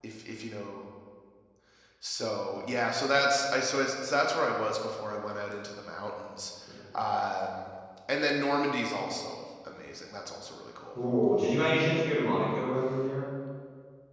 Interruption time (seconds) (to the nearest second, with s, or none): none